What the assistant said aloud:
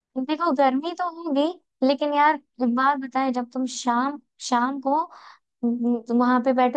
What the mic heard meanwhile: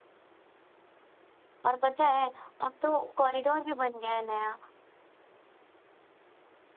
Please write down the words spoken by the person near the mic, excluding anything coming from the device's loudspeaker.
और पता है अब तो कॉरिडोर भी बन गया है नया

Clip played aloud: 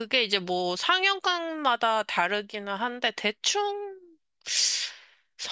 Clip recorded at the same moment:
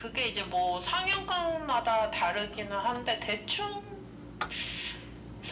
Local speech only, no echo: none

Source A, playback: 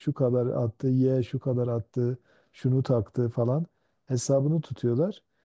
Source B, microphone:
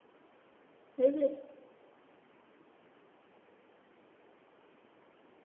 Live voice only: Evet.

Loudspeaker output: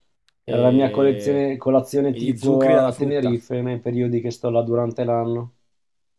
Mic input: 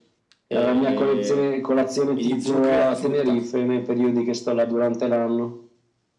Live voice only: none

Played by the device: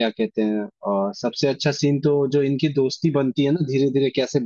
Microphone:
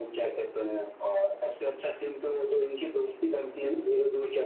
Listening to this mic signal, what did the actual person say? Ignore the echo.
none

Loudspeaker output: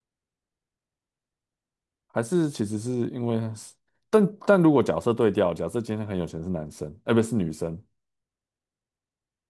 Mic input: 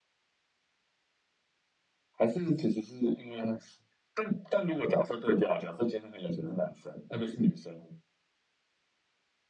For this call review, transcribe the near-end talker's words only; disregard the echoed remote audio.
none

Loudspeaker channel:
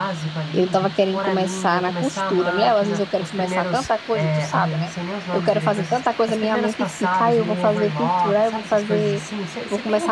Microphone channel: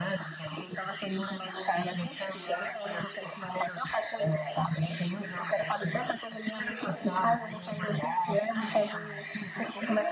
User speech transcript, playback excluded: none

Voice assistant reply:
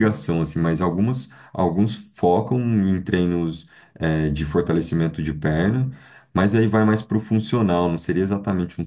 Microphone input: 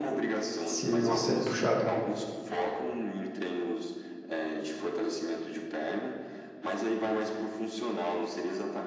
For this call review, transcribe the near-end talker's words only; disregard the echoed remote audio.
Sim, nossa, é puxado.

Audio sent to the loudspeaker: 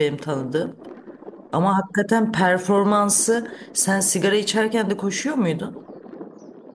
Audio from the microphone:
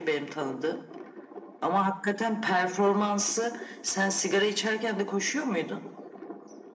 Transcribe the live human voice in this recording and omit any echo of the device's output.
none

